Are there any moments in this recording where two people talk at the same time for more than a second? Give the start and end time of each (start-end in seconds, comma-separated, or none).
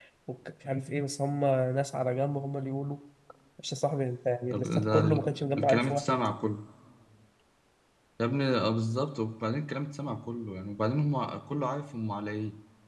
4.5-6.3